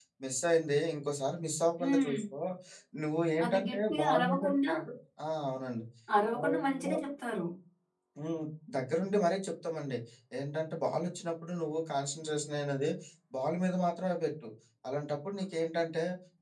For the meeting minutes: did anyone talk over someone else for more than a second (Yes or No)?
Yes